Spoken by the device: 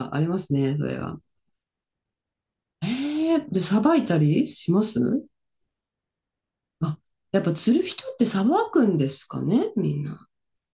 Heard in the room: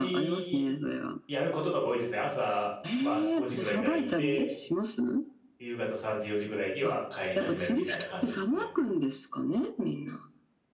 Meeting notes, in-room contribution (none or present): present